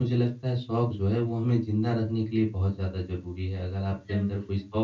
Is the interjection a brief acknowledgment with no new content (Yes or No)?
Yes